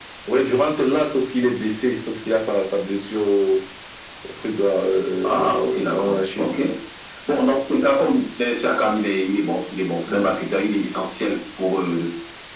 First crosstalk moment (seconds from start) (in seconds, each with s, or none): 5.2 s